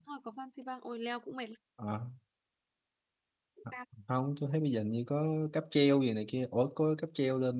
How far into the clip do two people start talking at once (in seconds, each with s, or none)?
none